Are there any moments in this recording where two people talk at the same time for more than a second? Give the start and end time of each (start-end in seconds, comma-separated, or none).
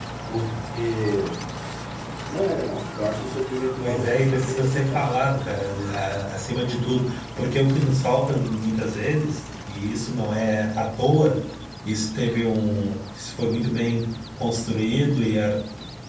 3.8-5.2